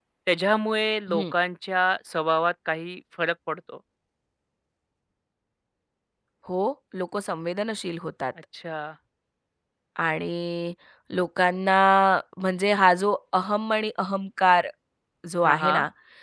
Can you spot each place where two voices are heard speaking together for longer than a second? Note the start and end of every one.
none

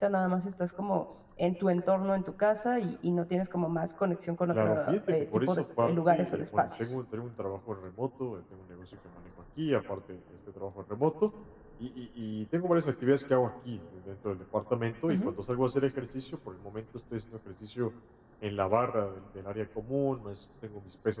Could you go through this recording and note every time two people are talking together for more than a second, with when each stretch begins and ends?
4.5-6.9

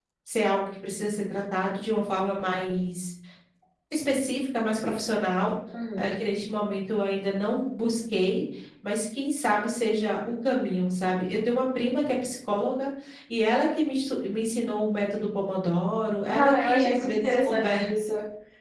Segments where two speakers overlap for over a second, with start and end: 16.3-17.8

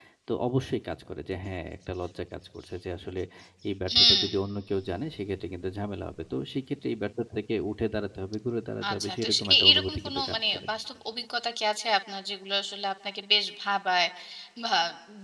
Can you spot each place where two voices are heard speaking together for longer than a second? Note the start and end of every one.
8.9-10.6

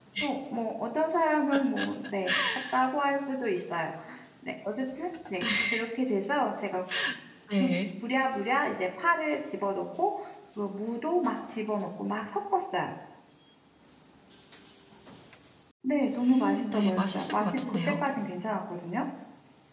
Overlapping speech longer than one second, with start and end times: 16.2-17.8

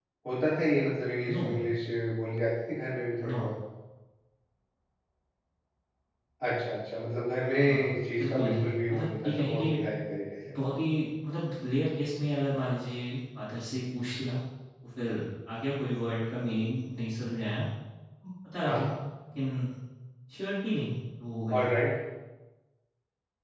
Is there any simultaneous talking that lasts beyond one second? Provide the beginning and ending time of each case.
8.2-9.7

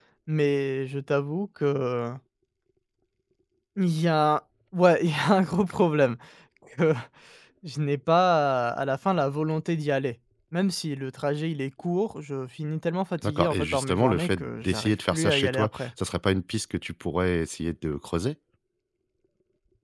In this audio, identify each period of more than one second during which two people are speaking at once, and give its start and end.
13.2-15.9

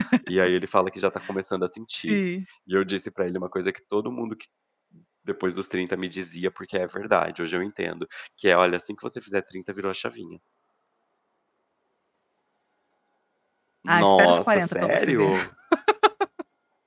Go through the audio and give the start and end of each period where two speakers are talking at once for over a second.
13.9-15.3

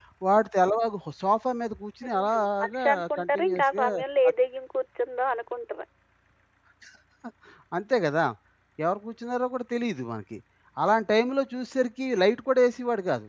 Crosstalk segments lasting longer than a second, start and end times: 2.0-3.9

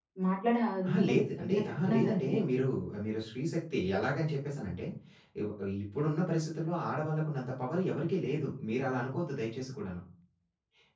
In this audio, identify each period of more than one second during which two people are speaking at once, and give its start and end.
0.8-2.2

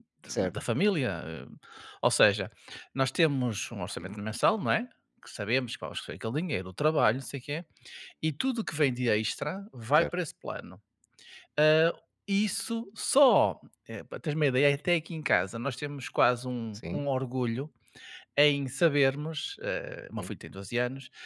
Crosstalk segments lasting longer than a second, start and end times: none

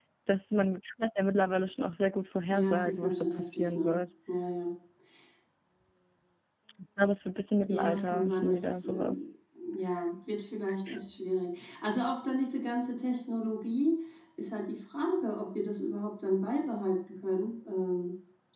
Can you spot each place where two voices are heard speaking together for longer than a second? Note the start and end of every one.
2.5-4.0, 7.7-9.2

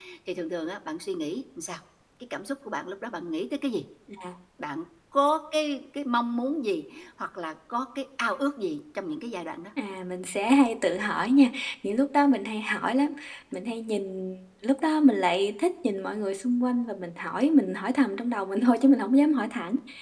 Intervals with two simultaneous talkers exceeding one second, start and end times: none

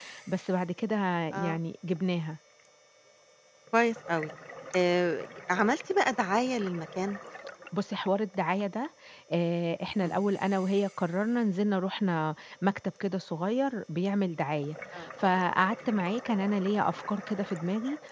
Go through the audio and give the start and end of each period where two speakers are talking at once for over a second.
none

